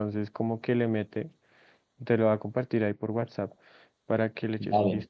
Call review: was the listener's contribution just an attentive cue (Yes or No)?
No